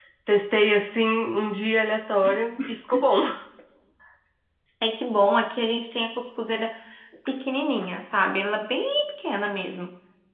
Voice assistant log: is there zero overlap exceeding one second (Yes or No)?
Yes